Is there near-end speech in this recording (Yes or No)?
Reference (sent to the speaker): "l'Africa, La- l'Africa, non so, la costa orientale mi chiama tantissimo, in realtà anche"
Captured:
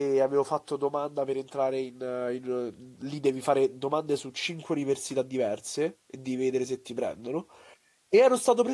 Yes